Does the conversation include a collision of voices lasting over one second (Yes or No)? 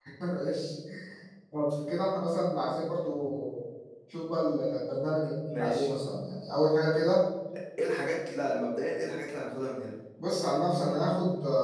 No